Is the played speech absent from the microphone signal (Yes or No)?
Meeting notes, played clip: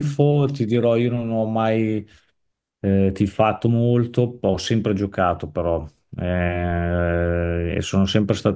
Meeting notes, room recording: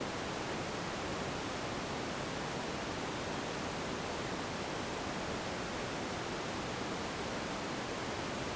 Yes